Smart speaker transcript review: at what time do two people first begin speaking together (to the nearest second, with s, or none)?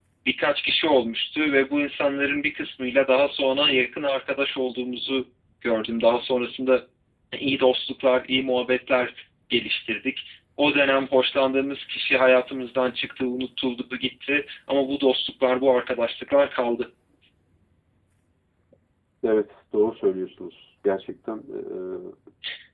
none